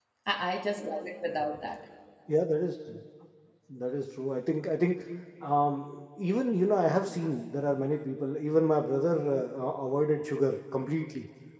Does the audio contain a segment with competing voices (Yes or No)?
No